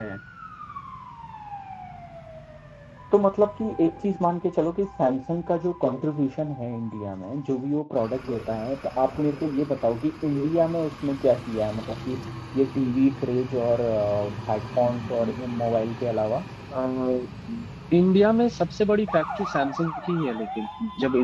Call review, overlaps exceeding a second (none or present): none